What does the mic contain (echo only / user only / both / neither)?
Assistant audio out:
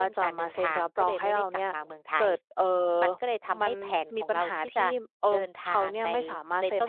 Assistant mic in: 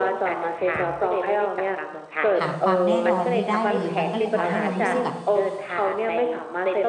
both